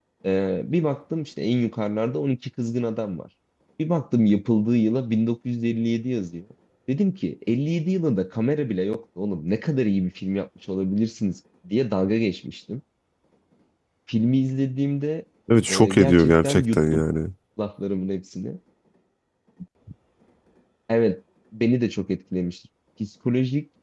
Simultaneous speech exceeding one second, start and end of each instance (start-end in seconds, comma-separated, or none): 15.7-17.0